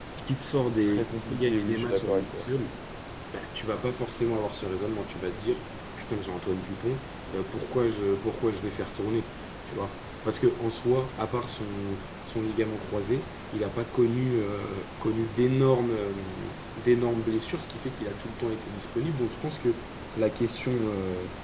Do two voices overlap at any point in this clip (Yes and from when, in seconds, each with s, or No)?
Yes, from 0.8 s